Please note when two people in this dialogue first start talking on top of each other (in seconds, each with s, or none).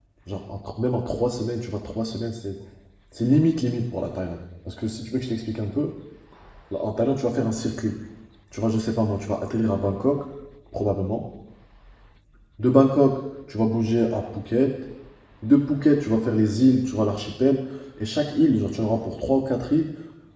none